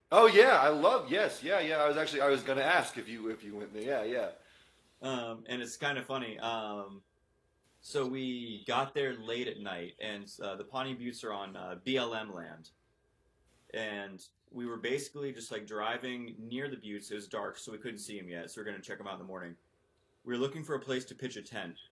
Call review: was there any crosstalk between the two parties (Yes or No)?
No